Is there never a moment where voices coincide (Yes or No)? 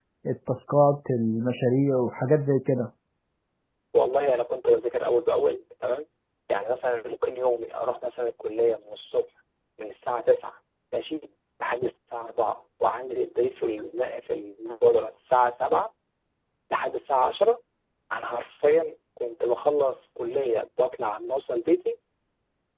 Yes